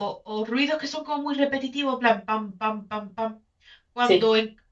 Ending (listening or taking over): listening